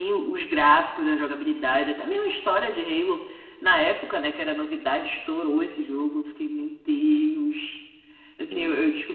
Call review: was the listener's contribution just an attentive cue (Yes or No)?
Yes